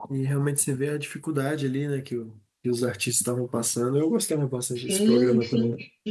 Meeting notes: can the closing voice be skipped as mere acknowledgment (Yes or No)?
No